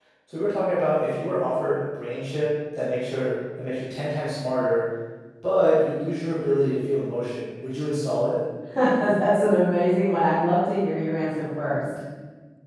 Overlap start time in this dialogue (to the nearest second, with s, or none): none